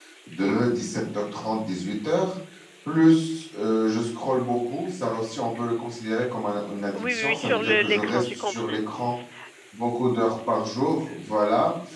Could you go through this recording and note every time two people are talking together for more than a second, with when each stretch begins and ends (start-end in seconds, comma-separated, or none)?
7.0-8.8